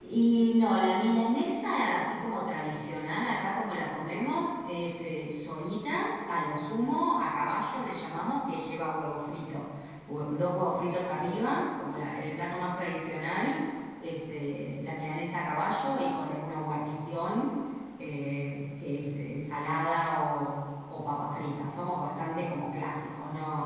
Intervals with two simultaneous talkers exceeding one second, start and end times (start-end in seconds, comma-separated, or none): none